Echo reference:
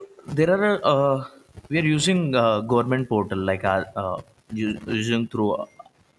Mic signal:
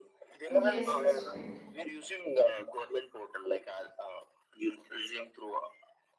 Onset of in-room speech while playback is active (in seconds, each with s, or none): 0.5 s